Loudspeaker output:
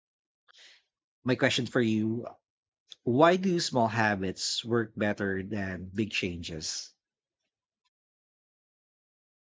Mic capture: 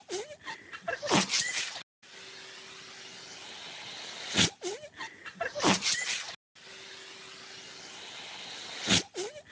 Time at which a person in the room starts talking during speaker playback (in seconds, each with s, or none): none